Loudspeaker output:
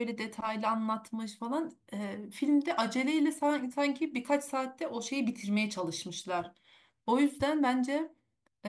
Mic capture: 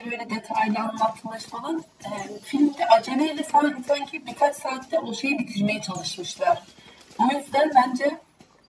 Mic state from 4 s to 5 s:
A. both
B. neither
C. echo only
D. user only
C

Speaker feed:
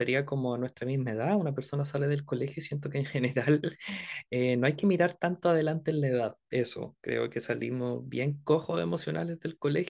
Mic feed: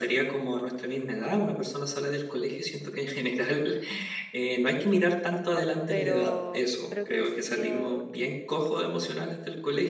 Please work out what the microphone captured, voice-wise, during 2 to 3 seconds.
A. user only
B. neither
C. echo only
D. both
C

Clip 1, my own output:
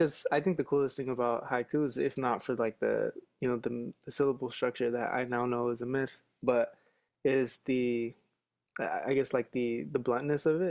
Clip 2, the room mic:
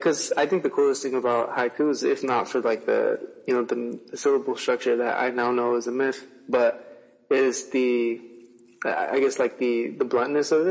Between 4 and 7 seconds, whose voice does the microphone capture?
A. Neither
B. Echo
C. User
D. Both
B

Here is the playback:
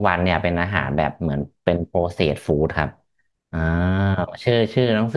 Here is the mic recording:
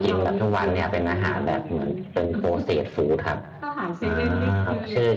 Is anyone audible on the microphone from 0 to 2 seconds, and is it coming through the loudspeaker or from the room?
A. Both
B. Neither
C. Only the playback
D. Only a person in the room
A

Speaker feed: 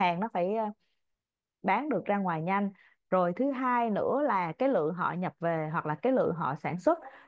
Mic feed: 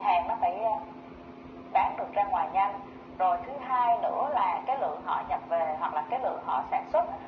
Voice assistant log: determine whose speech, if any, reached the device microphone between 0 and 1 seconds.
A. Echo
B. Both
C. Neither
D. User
A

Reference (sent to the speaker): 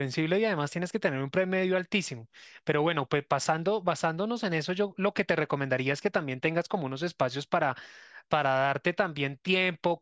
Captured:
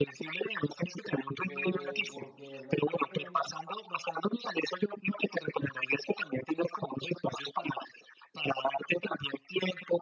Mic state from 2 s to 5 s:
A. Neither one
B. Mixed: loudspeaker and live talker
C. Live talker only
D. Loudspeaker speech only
B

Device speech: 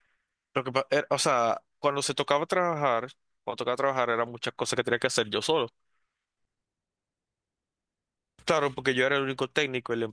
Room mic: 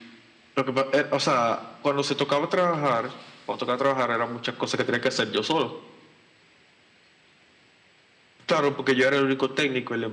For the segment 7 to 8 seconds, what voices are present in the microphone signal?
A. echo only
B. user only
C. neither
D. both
C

